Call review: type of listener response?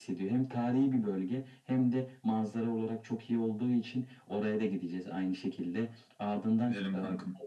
listening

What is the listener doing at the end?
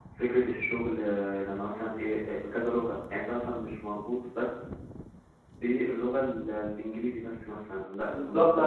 taking over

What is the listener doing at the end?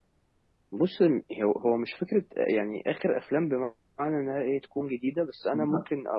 listening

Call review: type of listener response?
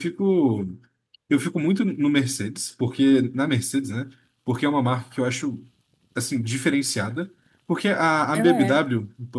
listening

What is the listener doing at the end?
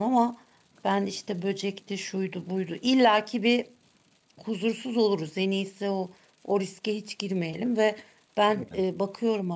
listening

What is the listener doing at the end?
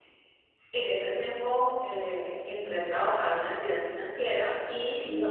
listening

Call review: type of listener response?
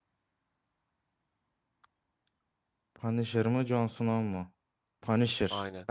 listening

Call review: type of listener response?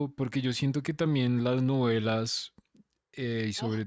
listening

